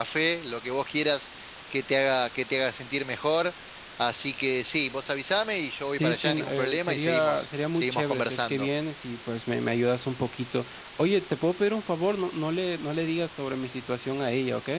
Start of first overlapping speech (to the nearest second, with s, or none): 6 s